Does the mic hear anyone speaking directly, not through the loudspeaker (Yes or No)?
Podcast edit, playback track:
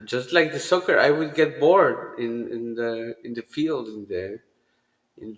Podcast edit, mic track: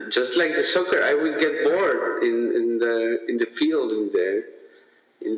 No